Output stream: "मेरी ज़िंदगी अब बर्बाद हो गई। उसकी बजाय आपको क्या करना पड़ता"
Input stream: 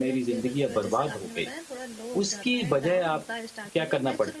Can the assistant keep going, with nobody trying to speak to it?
No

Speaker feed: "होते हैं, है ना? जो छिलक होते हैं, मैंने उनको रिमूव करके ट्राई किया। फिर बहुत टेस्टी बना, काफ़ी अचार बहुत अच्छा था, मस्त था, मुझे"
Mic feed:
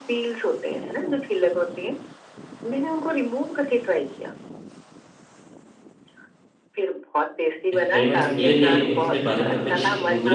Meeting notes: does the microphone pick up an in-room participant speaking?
Yes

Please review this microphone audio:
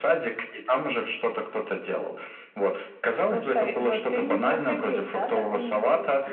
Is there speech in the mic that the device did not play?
No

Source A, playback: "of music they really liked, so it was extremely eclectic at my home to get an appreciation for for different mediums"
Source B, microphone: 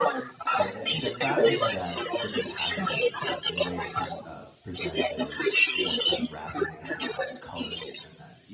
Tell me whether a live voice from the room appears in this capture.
Yes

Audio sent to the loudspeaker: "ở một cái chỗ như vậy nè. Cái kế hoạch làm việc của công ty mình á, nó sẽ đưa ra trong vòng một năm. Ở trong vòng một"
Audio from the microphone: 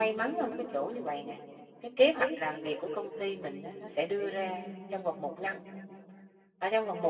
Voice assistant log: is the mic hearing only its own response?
Yes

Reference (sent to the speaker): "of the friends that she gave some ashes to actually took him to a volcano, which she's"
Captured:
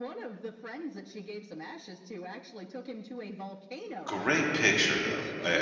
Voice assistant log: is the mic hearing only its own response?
No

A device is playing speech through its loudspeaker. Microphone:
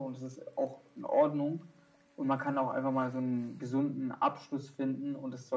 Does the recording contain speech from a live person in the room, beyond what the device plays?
No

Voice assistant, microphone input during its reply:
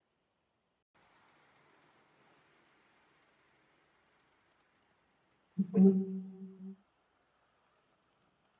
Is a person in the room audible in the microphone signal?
Yes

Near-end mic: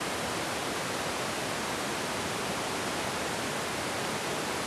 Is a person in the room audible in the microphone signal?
No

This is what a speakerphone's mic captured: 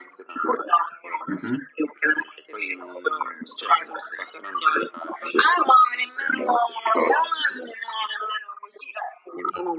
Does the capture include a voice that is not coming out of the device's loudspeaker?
Yes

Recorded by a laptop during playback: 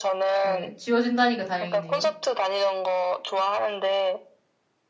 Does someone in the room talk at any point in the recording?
Yes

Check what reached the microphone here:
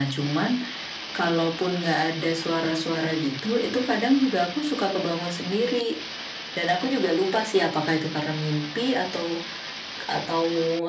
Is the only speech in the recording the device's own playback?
Yes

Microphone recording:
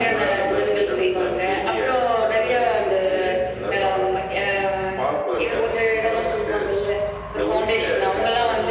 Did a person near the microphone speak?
No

